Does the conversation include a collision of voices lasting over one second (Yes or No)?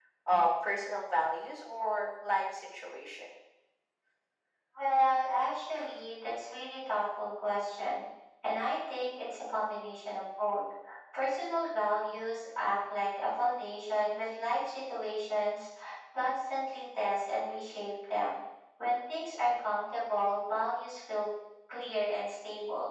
No